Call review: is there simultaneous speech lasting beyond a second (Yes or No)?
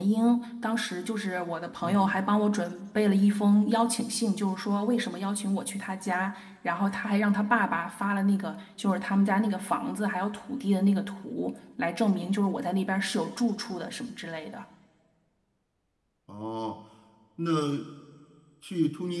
No